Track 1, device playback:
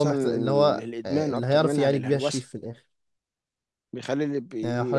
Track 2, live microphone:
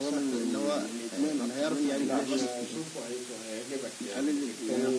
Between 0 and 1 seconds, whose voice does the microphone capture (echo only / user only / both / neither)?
echo only